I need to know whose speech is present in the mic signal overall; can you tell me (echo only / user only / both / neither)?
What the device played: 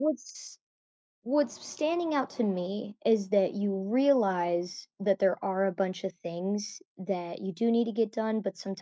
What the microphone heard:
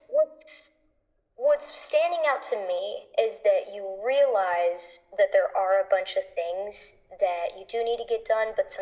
echo only